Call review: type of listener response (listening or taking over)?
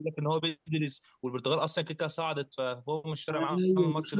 taking over